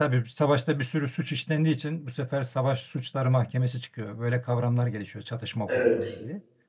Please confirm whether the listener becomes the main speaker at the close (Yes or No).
No